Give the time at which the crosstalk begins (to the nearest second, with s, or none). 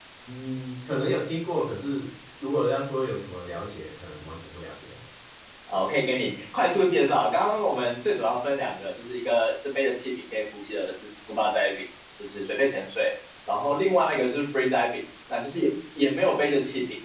none